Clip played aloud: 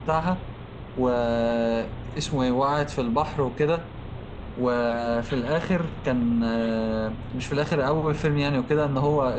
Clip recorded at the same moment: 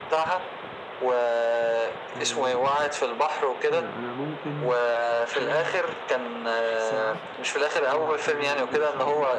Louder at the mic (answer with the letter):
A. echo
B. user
A